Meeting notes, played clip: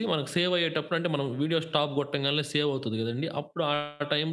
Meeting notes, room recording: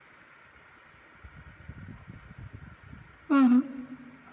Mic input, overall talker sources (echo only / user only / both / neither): user only